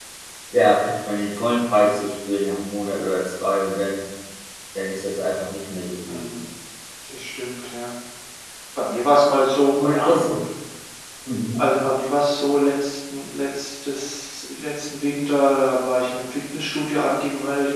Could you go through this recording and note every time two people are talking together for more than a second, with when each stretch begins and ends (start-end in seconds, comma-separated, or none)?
none